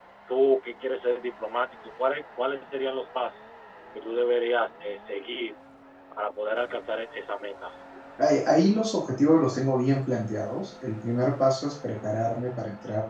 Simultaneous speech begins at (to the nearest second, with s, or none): none